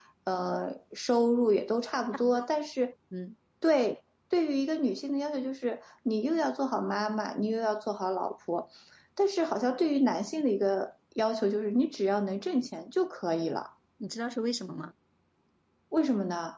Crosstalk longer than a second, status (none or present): none